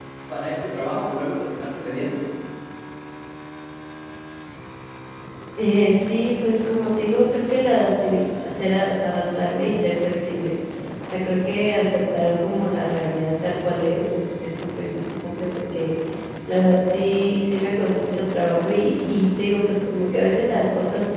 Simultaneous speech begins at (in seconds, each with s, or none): none